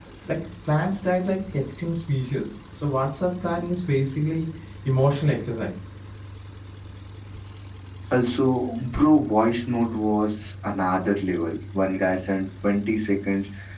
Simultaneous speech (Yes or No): No